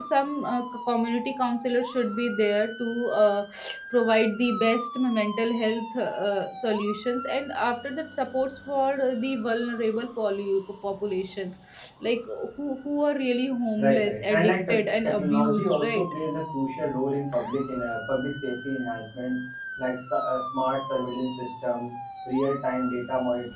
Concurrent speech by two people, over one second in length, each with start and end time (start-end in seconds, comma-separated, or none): 13.8-16.0